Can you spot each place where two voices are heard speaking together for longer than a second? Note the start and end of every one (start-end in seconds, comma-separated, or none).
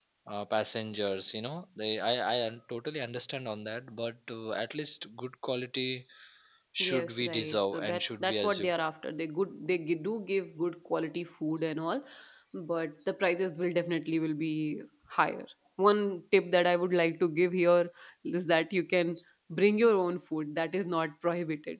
6.8-8.7